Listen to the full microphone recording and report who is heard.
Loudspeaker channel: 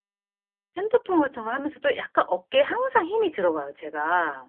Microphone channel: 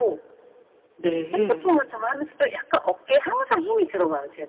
both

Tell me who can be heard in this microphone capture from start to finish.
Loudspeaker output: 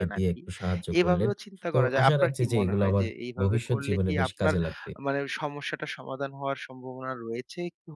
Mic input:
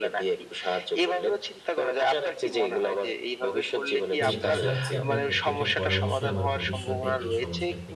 both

